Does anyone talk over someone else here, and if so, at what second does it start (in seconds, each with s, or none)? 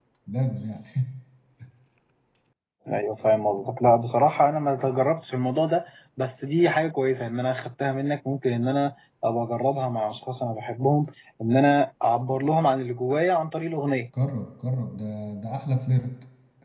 none